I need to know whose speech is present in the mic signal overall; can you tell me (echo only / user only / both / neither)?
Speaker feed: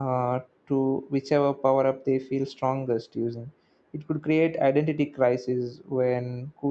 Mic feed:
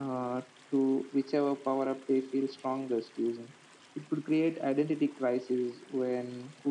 echo only